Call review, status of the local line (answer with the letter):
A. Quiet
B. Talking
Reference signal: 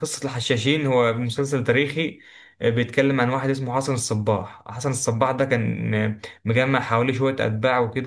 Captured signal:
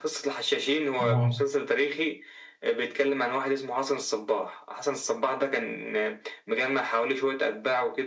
B